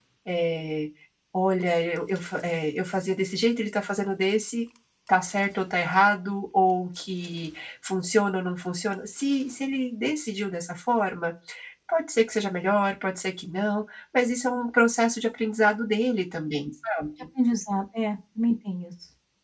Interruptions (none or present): none